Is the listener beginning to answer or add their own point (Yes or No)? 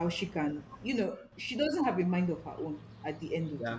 No